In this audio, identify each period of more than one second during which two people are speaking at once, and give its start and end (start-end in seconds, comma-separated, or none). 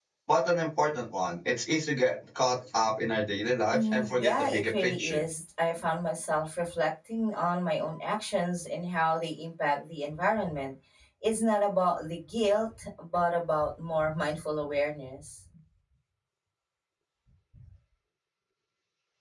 3.7-5.2